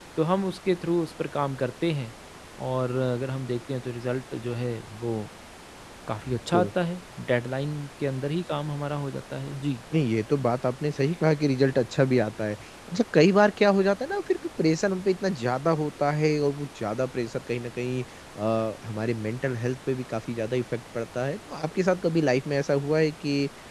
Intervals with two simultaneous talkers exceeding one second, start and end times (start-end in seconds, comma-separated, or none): none